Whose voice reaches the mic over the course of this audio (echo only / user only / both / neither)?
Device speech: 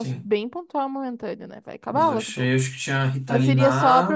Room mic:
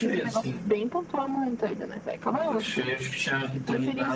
echo only